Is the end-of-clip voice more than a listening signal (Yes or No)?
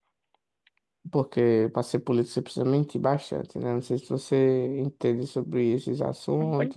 Yes